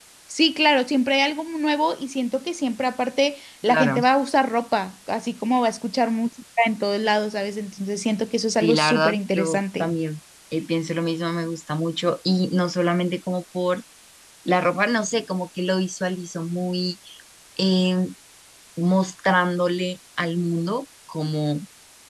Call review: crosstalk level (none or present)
present